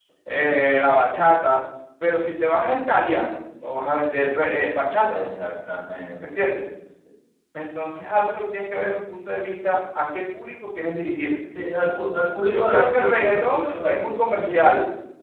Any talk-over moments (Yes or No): Yes